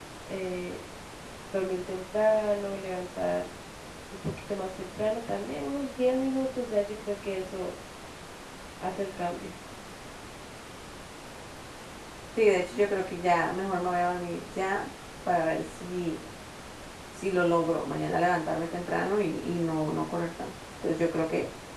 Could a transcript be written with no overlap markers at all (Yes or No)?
Yes